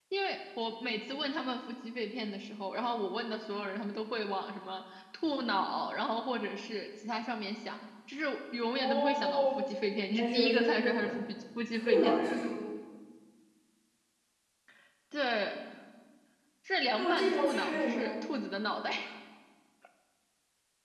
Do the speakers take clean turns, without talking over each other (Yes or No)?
No